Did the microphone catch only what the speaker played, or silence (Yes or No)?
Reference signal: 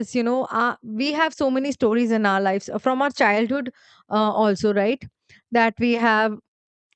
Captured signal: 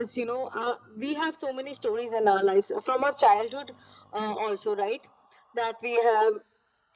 Yes